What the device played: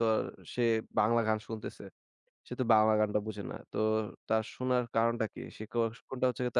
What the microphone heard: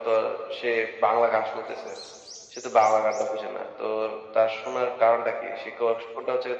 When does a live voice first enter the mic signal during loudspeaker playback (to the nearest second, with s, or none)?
none